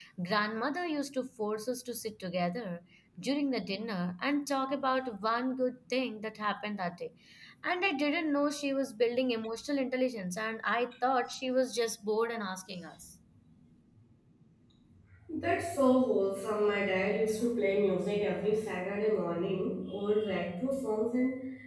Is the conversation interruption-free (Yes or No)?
Yes